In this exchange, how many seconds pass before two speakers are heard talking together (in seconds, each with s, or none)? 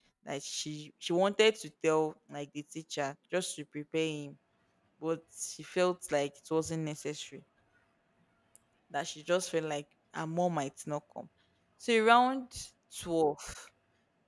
none